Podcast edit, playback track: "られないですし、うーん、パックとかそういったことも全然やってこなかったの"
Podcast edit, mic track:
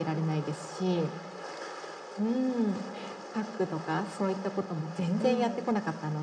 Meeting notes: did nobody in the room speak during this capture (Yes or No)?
No